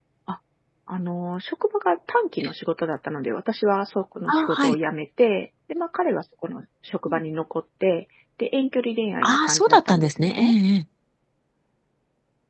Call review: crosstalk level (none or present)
present